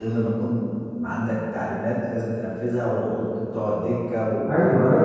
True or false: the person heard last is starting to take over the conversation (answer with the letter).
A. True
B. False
A